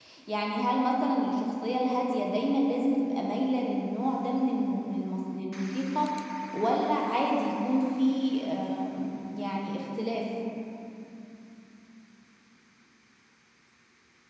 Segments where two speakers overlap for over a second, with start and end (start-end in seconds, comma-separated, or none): none